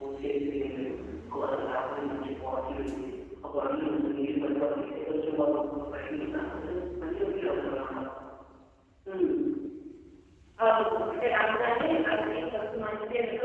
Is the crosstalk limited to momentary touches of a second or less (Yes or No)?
Yes